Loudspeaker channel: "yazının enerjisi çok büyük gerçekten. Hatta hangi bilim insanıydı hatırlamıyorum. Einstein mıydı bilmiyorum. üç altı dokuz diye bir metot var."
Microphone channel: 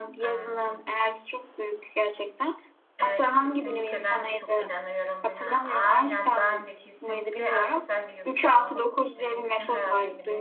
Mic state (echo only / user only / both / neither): both